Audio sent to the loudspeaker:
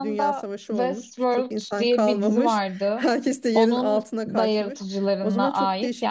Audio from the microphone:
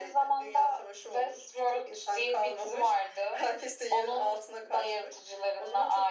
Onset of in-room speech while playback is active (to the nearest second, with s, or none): none